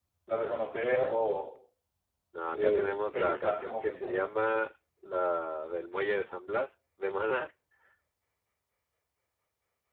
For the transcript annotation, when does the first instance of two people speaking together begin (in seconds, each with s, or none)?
2.5 s